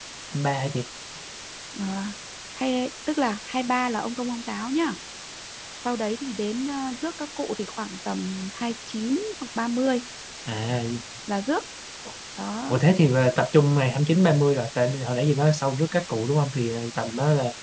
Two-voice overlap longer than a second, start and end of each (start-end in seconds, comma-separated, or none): none